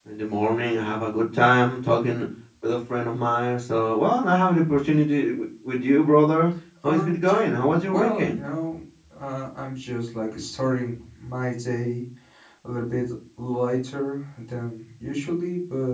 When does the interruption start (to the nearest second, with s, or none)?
7 s